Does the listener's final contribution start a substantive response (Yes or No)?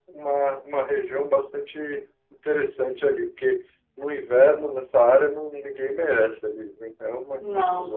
Yes